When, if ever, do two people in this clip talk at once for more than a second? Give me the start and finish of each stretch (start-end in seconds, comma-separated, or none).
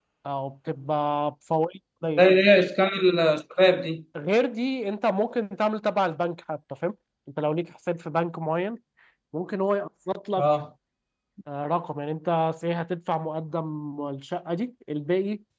none